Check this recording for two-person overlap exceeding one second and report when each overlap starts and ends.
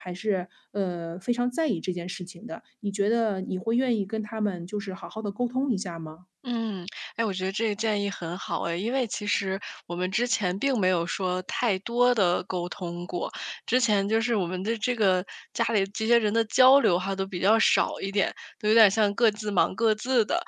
none

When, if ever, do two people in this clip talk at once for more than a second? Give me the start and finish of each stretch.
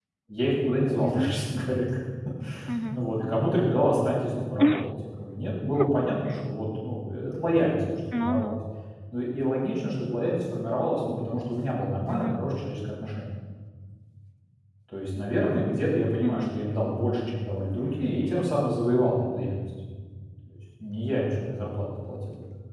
none

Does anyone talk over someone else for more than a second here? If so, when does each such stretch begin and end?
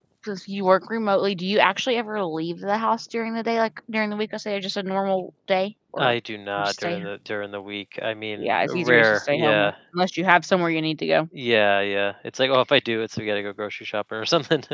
8.4-9.7

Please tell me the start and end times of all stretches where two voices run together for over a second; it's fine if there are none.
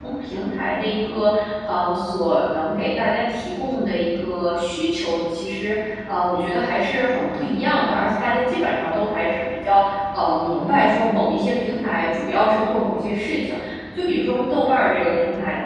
none

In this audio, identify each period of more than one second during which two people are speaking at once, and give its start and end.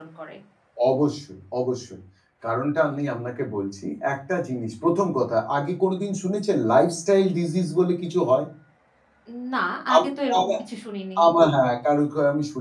none

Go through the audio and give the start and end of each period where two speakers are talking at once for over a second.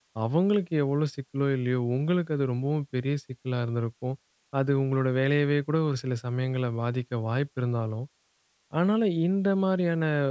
none

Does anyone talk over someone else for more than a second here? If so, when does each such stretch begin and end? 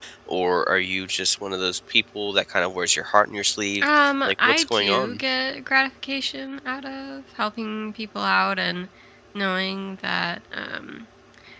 3.8-5.2

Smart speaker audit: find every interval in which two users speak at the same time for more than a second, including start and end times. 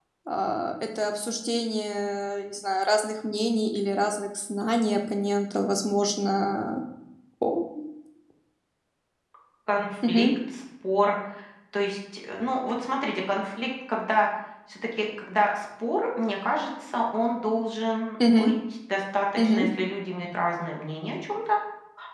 none

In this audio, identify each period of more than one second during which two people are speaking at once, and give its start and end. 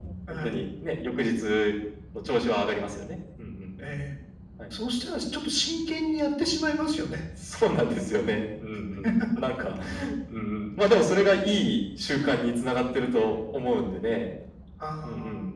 none

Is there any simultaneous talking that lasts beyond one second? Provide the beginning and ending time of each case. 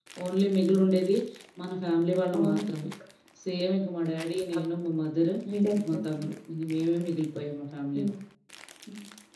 none

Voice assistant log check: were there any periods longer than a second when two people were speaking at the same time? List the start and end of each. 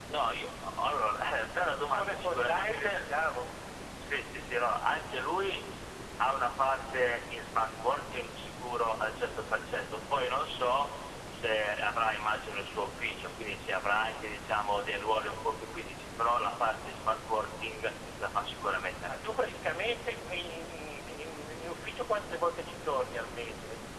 1.8-3.0

